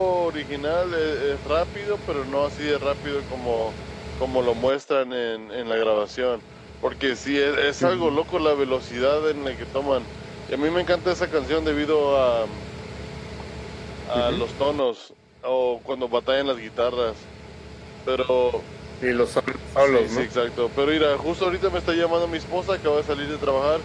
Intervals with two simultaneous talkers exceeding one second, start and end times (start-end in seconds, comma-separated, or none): none